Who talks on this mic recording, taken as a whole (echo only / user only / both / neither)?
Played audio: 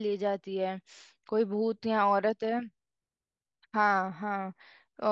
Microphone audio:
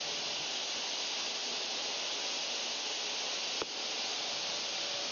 neither